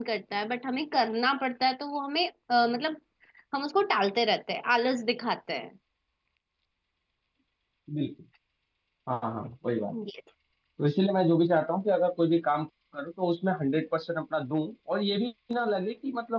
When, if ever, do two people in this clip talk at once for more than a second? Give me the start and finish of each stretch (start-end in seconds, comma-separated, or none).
none